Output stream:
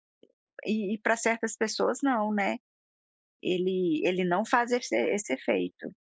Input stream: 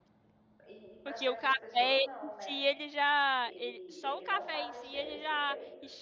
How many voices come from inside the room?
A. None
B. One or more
B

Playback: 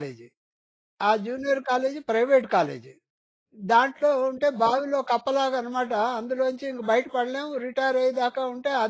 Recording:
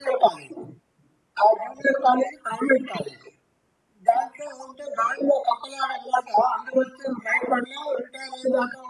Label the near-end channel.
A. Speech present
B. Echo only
B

